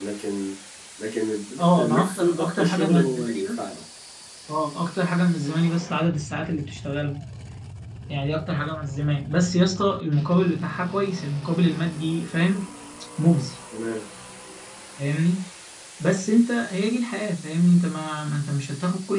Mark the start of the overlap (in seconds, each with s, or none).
1.6 s